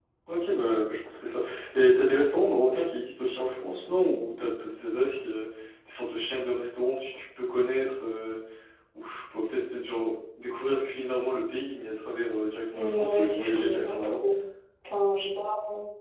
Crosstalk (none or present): present